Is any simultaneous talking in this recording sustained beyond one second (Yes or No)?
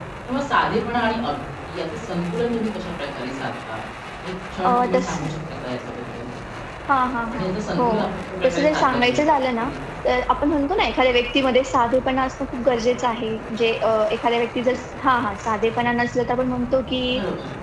Yes